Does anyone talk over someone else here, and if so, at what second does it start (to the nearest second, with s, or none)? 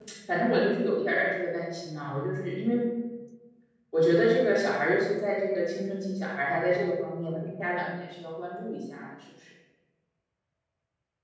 none